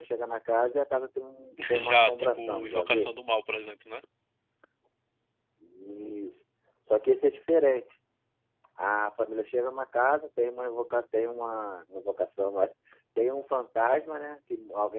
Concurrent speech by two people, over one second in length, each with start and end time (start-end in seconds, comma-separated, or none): 1.8-3.1